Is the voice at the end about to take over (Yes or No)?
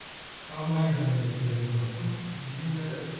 No